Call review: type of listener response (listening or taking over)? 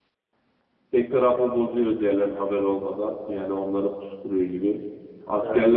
listening